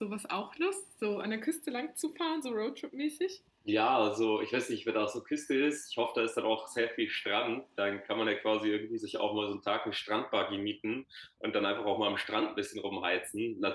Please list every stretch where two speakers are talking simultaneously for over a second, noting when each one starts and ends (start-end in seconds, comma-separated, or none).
none